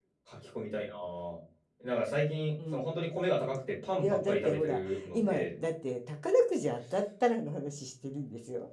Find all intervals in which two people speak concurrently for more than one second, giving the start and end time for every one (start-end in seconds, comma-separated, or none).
4.0-5.5